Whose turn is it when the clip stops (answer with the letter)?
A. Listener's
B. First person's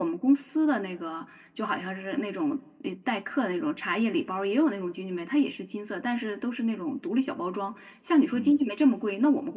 B